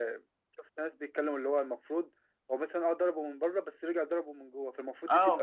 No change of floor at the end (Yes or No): No